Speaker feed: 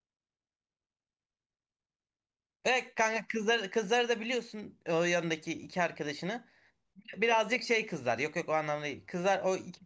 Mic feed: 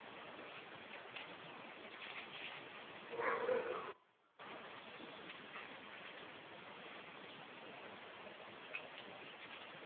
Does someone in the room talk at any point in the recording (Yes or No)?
No